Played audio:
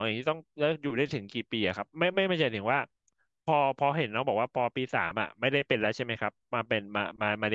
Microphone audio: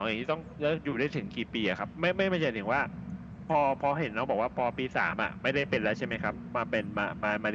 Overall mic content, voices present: echo only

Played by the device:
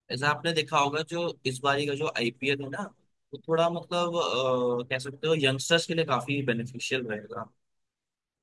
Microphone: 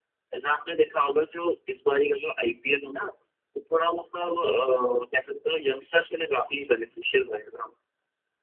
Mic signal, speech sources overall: echo only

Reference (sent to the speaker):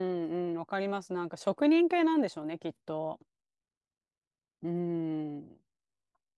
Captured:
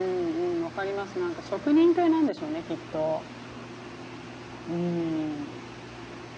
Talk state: echo only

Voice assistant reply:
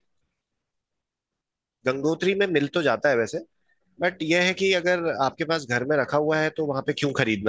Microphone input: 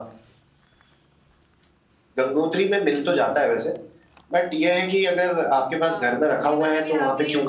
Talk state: both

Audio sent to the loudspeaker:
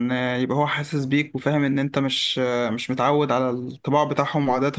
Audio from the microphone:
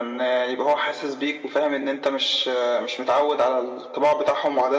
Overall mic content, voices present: echo only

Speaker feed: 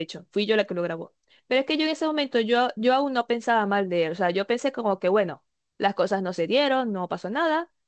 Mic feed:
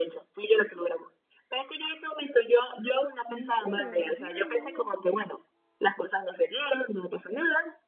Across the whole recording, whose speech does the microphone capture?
both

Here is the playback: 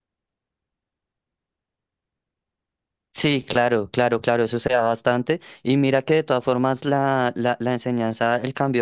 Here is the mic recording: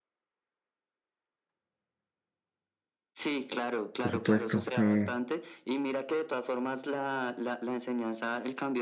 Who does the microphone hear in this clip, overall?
both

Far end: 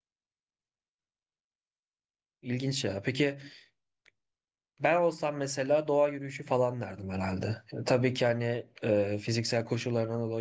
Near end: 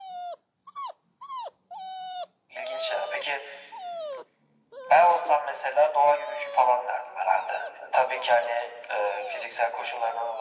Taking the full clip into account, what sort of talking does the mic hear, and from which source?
echo only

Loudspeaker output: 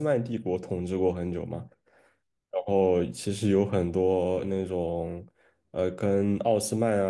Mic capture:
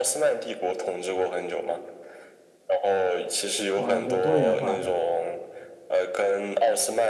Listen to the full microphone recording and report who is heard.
both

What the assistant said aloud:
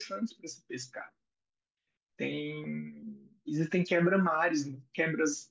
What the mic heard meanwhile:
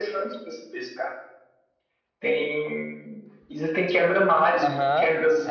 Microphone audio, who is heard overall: both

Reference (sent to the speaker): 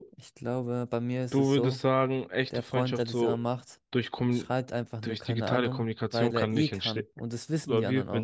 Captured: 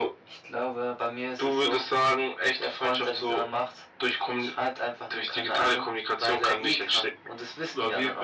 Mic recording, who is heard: echo only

